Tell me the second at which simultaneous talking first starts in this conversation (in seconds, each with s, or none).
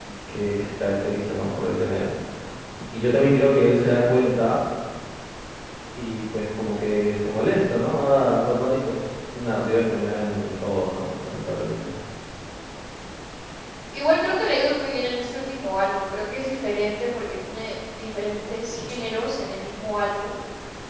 none